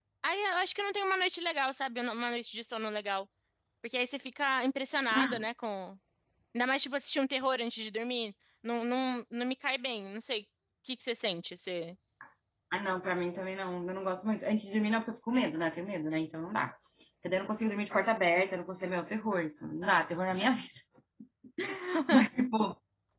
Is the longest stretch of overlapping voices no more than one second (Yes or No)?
Yes